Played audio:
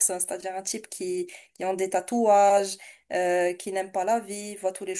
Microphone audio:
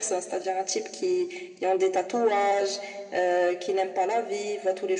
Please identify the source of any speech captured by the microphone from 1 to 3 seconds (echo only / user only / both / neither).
echo only